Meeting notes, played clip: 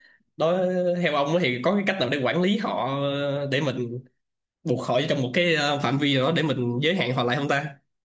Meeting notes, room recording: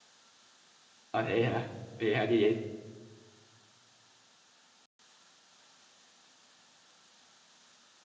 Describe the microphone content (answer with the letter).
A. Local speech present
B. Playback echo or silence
A